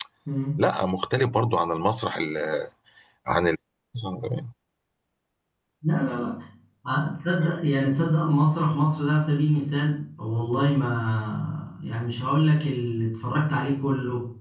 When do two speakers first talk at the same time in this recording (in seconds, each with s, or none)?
none